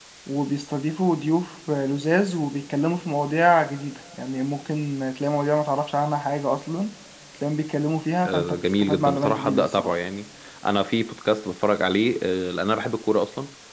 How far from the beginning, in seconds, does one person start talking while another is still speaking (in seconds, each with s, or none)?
8.2 s